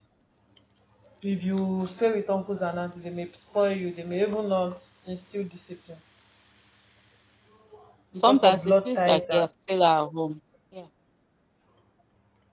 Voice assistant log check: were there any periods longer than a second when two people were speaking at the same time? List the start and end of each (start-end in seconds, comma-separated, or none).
8.2-9.4